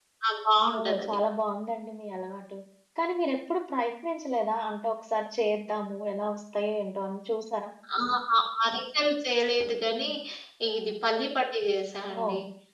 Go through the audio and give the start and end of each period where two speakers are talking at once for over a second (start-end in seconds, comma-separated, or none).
none